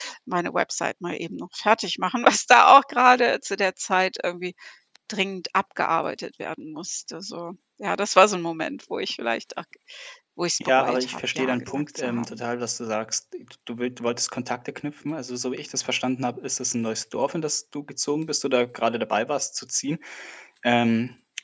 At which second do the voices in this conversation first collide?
10.8 s

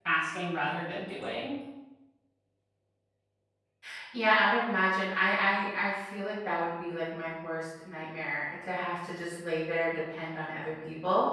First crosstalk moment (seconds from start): none

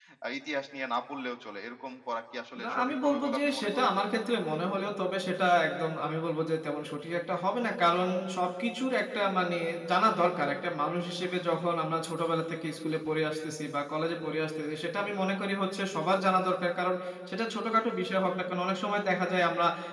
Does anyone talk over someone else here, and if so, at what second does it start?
2.6 s

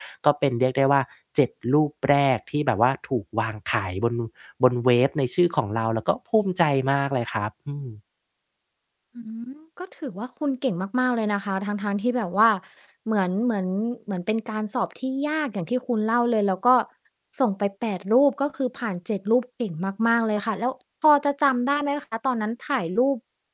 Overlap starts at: none

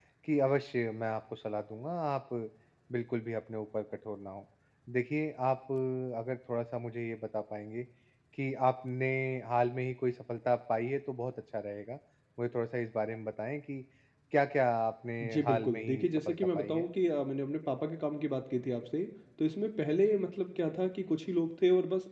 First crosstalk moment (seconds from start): 15.2 s

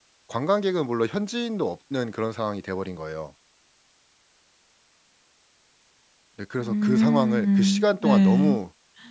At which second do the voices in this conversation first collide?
6.6 s

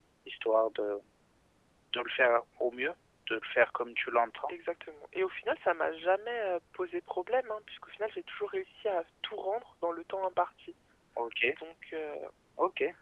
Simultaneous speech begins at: none

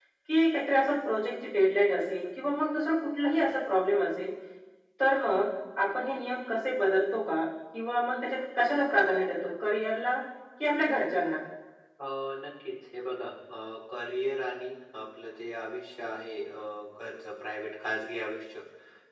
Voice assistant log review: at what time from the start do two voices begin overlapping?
none

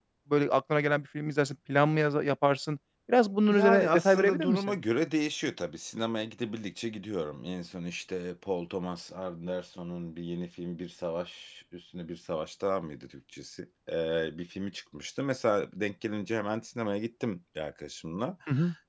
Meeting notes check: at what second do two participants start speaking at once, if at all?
3.5 s

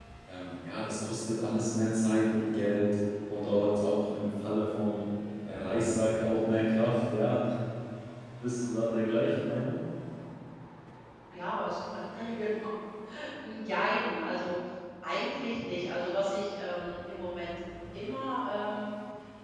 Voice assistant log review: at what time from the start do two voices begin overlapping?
none

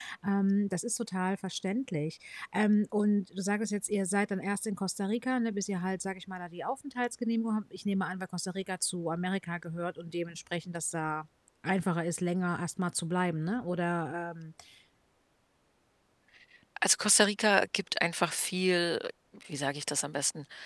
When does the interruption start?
none

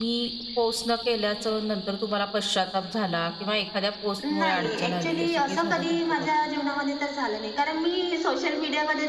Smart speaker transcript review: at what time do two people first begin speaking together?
4.2 s

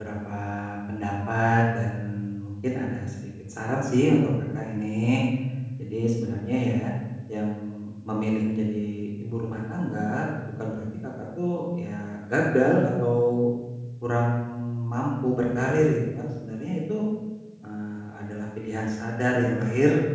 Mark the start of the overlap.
none

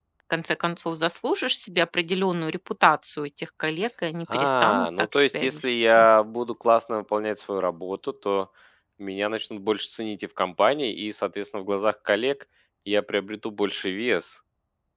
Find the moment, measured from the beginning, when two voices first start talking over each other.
4.3 s

